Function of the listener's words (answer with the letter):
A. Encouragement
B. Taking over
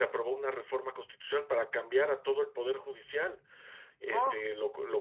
A